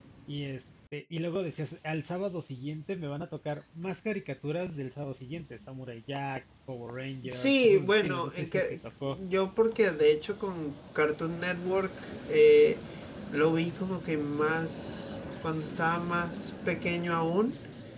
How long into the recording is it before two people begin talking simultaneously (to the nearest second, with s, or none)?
7 s